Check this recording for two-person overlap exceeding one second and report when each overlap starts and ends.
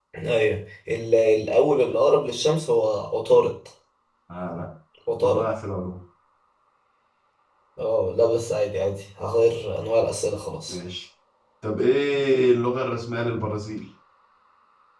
none

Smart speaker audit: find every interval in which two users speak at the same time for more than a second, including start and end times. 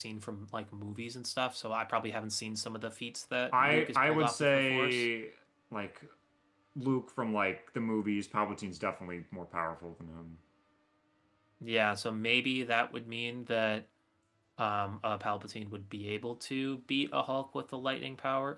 3.5-5.1

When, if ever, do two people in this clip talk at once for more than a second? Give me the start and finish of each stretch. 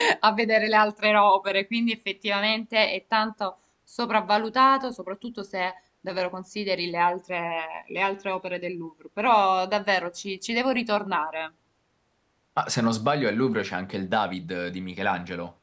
none

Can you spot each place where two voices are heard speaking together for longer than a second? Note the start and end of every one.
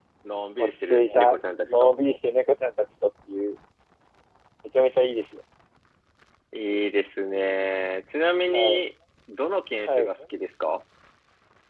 0.6-1.9

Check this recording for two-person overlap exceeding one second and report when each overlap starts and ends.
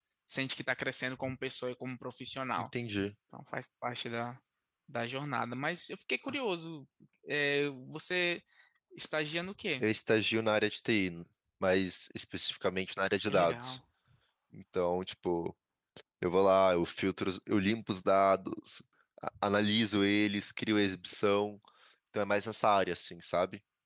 none

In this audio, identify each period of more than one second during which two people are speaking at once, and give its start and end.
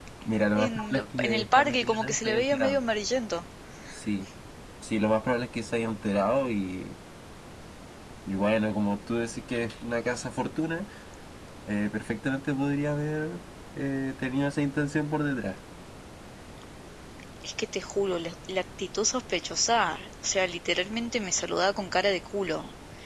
0.5-2.8

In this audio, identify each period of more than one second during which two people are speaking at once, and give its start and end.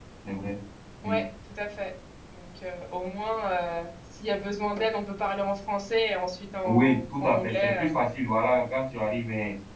6.6-7.9

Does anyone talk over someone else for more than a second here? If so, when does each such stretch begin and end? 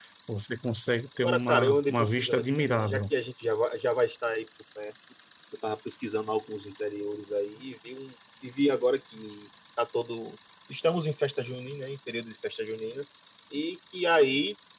1.2-3.0

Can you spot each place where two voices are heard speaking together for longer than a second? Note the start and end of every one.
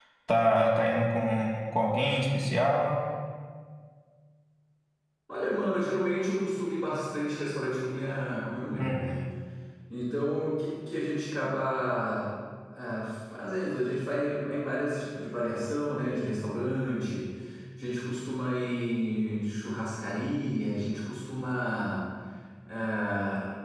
none

